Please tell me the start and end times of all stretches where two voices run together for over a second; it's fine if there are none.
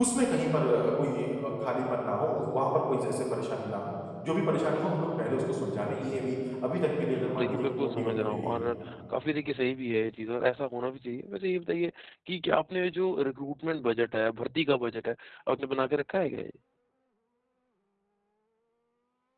7.2-8.6

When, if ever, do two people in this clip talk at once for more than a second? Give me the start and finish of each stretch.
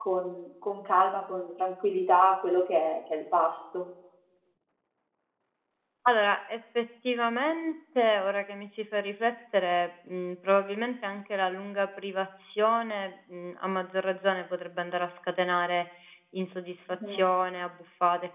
none

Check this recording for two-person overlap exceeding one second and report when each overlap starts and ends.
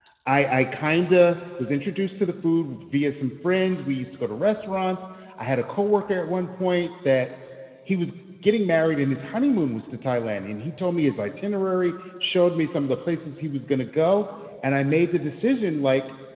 none

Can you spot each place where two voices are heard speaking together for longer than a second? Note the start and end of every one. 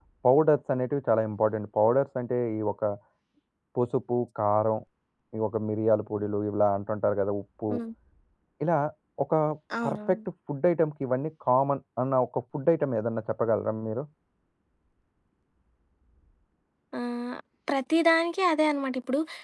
none

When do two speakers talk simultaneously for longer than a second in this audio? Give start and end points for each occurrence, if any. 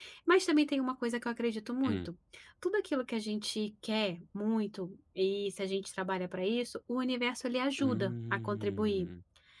7.8-9.1

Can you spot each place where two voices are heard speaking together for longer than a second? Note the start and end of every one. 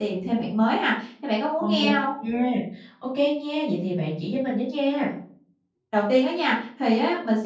none

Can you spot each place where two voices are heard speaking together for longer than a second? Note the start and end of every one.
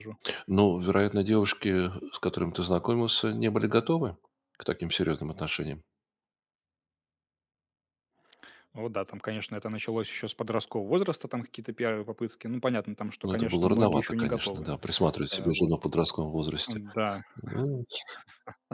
13.2-14.7

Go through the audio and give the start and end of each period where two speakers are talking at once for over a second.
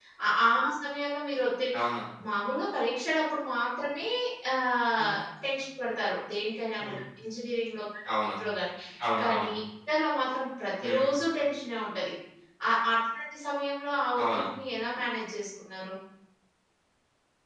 none

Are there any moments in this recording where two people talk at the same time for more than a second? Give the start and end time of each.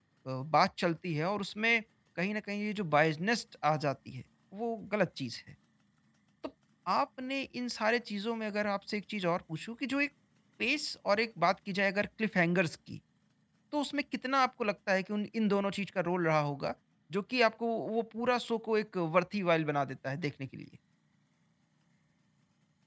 none

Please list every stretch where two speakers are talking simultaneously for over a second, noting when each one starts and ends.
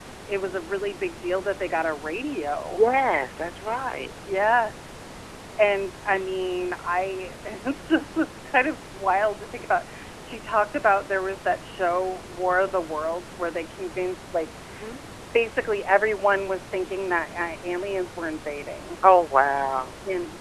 none

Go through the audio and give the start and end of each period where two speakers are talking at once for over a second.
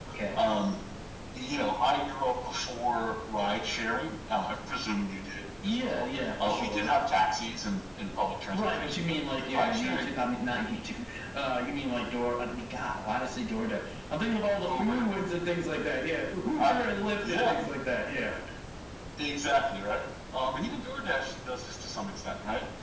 5.6-6.9, 8.5-10.1

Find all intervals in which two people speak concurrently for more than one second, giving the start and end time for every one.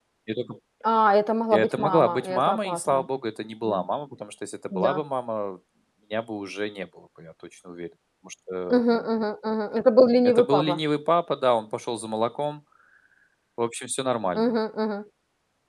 1.5-3.1

